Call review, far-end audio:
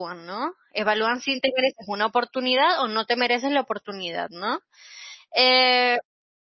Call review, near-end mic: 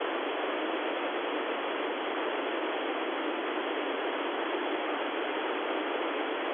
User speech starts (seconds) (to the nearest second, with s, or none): none